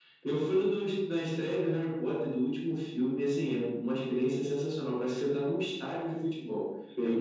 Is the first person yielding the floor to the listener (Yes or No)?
Yes